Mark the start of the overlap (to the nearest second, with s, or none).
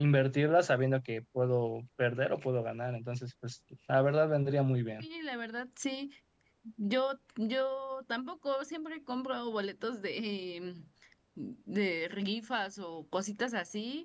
none